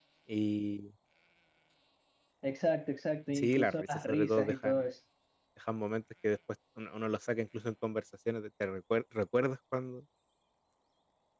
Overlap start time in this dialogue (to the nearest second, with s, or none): 3 s